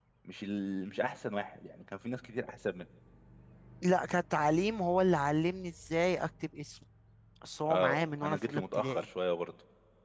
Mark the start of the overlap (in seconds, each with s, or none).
7.7 s